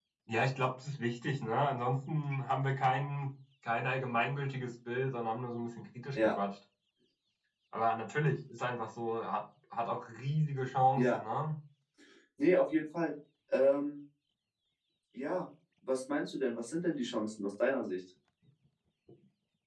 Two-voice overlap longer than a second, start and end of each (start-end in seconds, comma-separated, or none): none